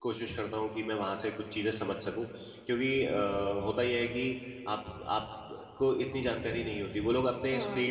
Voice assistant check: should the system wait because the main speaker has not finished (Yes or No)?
Yes